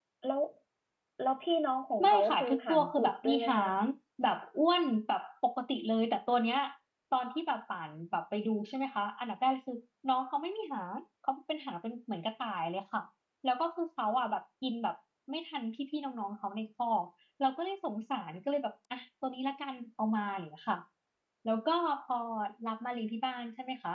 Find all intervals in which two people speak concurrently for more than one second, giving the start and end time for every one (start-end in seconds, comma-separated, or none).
2.0-3.7